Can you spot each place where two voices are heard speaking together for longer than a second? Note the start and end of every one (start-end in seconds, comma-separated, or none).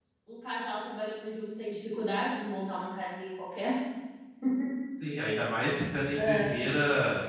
none